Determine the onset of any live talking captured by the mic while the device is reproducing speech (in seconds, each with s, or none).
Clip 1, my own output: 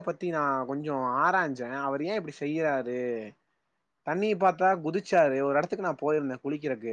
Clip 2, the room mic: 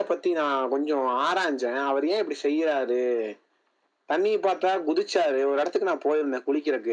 none